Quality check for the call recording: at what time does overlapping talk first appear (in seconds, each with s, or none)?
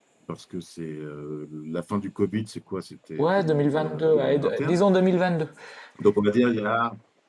3.2 s